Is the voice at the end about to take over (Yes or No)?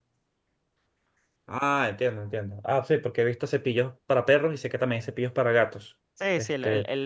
Yes